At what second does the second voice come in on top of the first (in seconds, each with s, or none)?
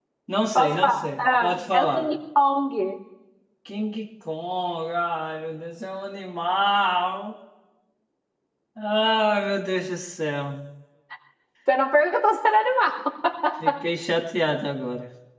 0.5 s